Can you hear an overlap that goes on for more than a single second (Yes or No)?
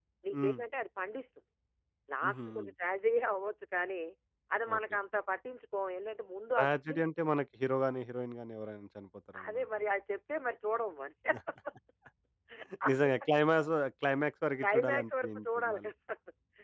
Yes